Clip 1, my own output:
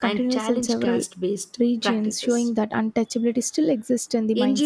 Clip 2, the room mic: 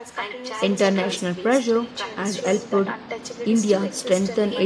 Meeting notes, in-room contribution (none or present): present